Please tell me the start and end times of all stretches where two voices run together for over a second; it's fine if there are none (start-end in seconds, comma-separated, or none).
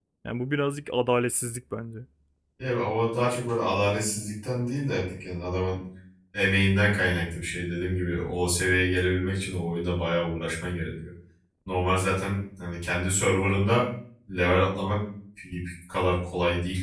none